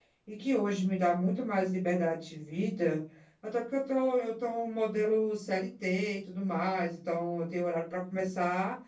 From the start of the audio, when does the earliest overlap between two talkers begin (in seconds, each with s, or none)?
none